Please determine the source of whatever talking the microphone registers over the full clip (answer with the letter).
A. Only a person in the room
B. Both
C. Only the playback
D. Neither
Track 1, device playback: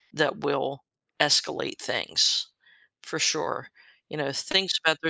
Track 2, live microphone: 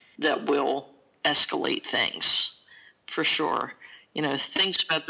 C